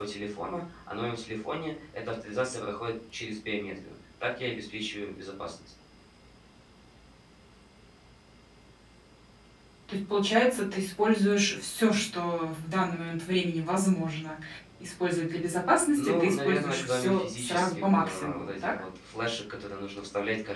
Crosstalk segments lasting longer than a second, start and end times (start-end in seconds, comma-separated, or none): 16.0-18.7